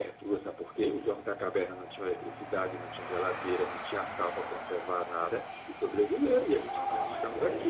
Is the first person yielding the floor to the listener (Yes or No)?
Yes